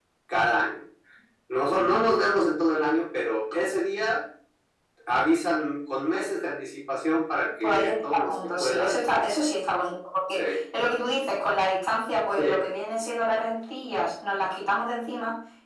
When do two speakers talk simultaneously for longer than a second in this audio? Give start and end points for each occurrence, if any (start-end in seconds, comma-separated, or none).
7.6-9.3